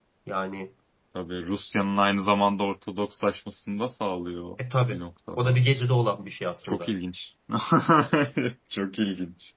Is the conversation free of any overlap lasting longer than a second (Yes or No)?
Yes